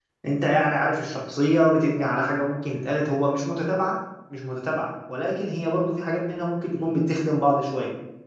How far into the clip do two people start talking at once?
none

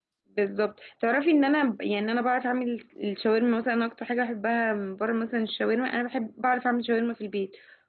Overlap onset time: none

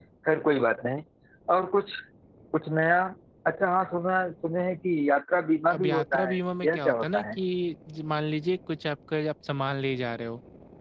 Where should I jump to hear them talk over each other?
6 s

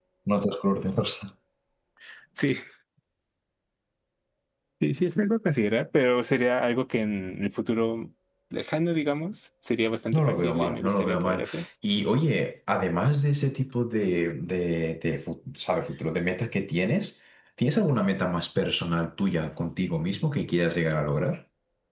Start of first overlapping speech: 10 s

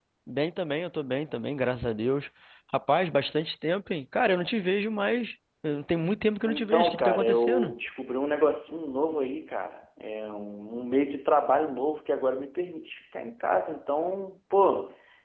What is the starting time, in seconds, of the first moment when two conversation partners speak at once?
6 s

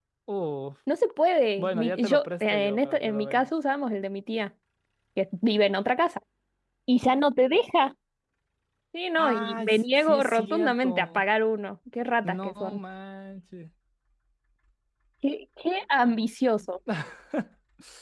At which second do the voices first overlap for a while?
2 s

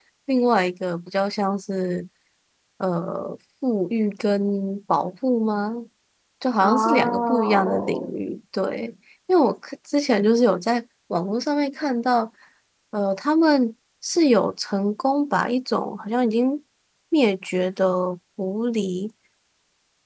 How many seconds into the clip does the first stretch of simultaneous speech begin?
7 s

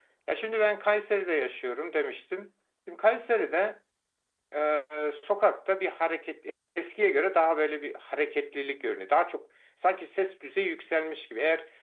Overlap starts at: none

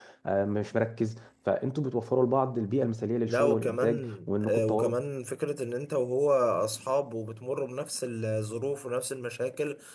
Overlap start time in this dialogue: 3 s

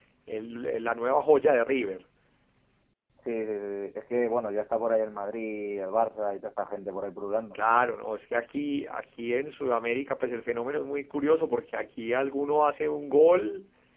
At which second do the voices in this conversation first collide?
none

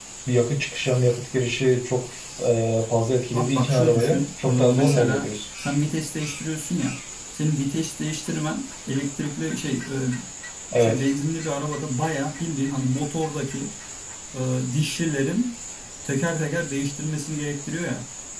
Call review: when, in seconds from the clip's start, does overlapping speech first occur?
3 s

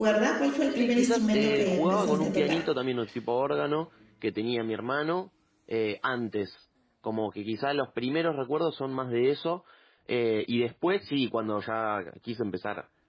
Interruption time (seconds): 1 s

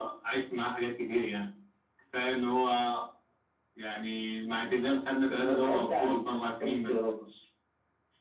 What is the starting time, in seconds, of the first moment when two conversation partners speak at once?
5 s

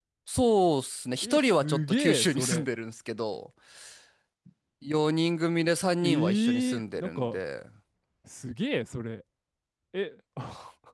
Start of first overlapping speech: 1 s

